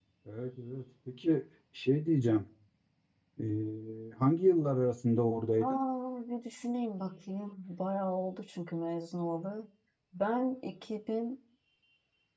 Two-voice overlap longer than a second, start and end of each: none

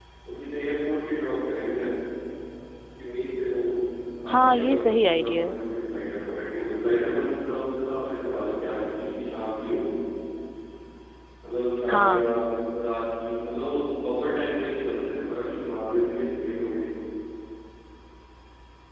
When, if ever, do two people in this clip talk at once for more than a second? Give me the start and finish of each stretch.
4.3-5.6

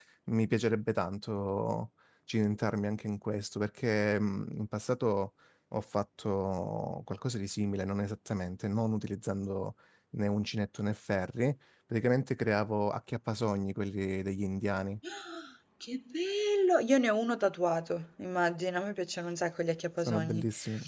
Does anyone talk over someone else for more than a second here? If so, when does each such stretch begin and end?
none

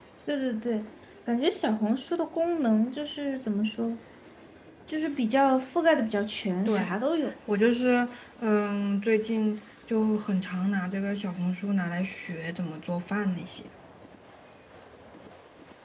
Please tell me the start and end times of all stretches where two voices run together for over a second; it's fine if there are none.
none

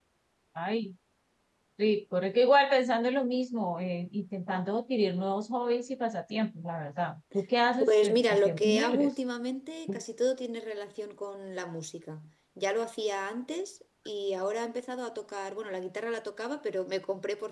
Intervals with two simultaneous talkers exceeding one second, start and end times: 7.8-9.1

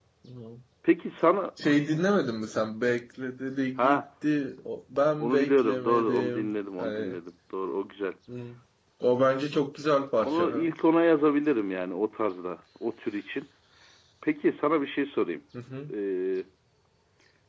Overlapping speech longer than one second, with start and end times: 5.2-7.2

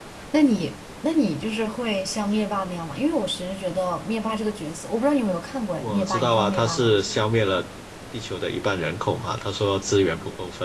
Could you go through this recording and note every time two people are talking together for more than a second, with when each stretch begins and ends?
5.8-7.0

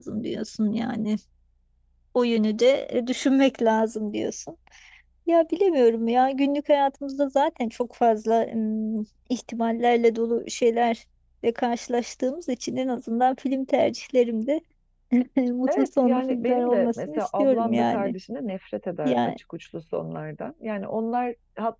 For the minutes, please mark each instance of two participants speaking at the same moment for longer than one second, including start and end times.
15.7-18.1

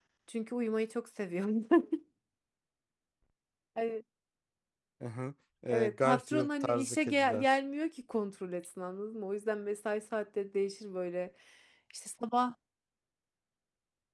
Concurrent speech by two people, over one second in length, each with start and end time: 5.7-7.6

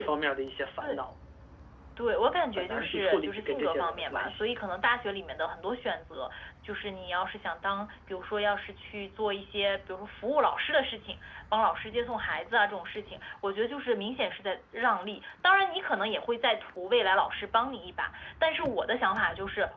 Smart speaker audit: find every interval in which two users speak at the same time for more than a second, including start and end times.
2.6-4.5

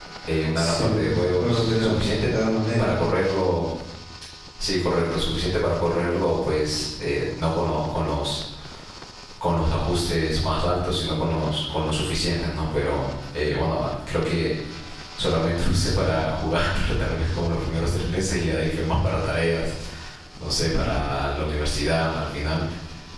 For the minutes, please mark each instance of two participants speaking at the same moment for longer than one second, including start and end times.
0.6-2.4

